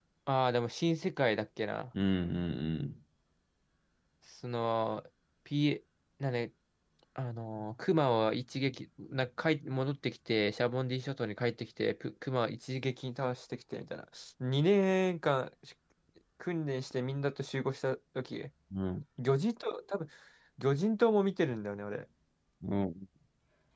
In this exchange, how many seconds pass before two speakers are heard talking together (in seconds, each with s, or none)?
none